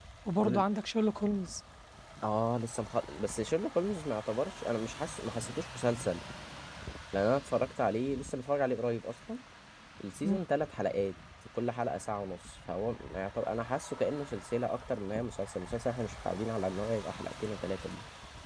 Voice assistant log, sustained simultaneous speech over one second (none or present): none